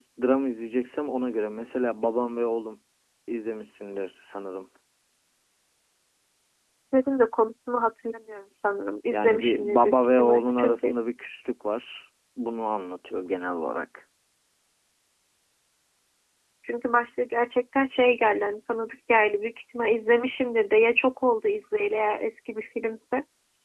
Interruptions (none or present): present